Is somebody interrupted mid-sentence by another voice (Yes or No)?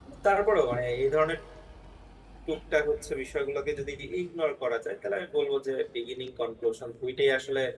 No